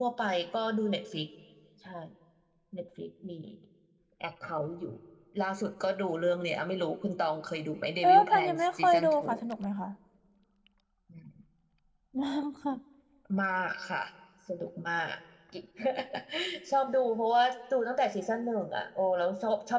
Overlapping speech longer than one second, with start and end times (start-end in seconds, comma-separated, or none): 8.0-9.2